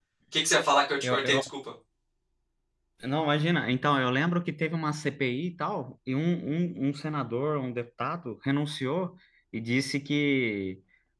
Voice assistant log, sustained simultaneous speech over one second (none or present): none